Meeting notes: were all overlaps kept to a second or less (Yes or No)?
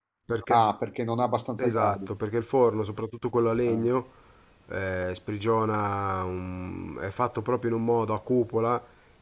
Yes